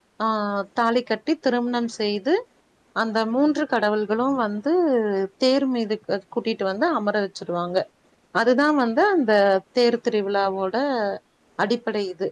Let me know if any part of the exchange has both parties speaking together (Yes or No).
No